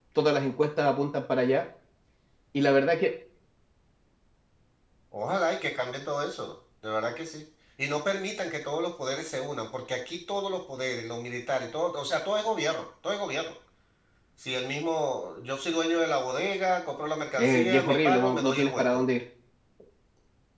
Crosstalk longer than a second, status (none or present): present